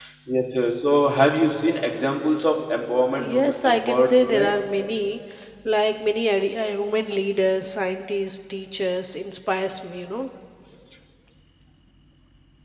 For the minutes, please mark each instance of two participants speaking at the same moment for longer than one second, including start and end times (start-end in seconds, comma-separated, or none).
3.2-4.5